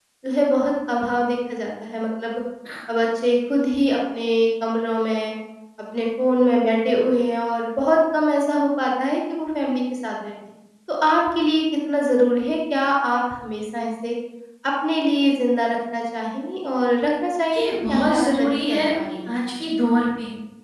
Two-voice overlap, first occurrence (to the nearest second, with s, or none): 18 s